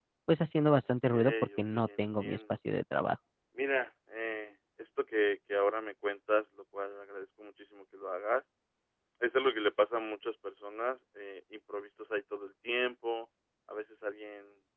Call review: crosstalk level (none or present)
present